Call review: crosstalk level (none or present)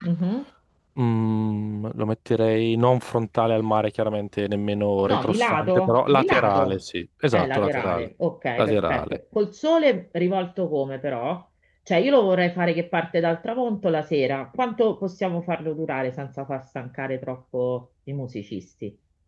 present